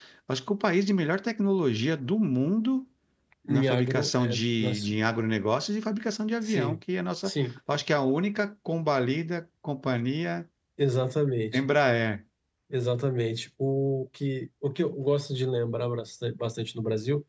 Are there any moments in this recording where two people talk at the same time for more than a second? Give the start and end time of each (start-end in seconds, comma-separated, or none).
3.5-4.9